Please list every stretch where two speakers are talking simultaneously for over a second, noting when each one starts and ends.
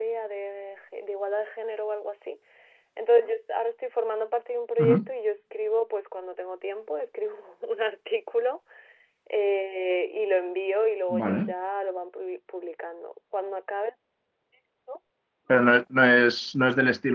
none

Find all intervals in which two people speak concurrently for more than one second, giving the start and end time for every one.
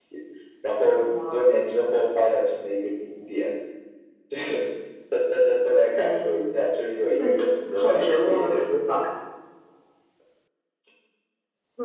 7.2-8.6

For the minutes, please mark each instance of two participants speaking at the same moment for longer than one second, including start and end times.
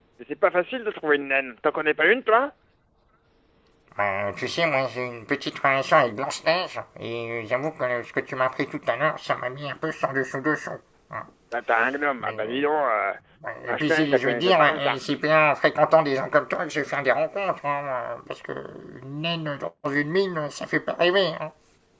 13.7-15.0

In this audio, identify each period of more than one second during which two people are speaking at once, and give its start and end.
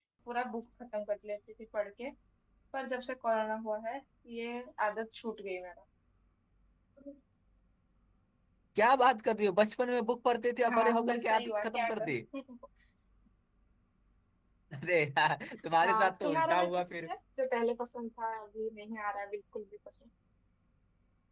10.7-12.2, 15.8-17.1

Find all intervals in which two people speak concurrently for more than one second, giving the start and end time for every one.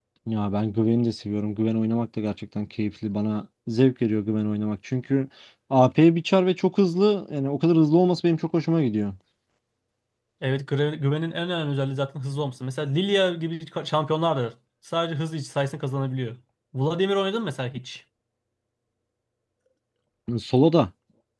none

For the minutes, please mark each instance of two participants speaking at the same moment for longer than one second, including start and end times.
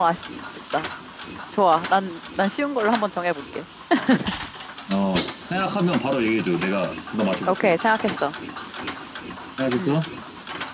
none

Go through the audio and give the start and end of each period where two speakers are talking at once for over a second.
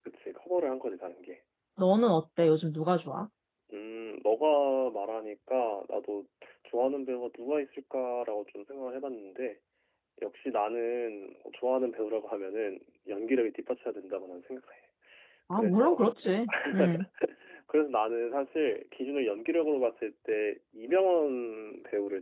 none

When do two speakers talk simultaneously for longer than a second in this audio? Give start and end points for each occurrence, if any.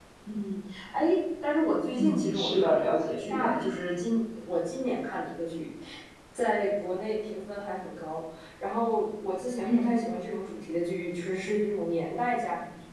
1.9-3.5

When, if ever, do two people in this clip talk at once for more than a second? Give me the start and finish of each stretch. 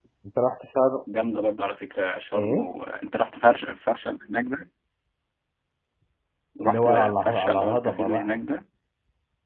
6.6-8.3

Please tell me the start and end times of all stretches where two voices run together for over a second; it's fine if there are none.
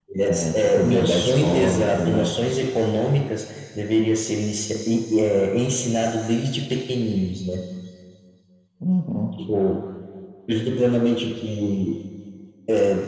0.6-2.4

